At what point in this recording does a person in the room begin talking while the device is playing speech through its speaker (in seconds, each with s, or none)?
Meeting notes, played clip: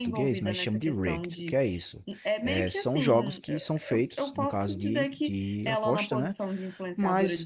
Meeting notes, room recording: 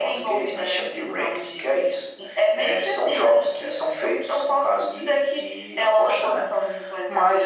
none